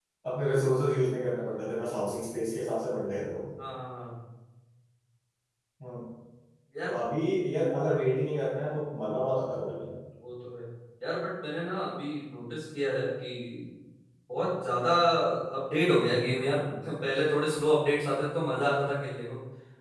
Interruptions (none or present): none